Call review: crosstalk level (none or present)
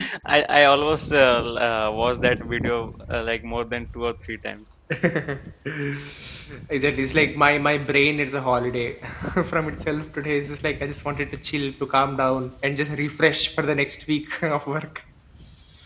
none